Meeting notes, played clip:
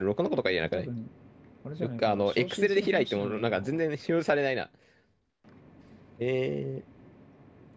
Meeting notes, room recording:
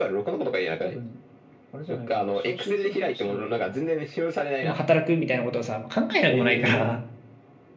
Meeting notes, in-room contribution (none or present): present